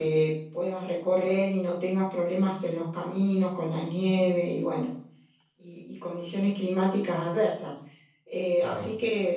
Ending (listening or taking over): listening